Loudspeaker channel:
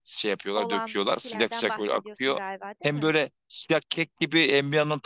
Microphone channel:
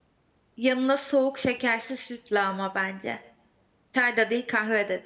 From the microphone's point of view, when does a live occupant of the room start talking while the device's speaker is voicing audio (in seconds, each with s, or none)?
0.6 s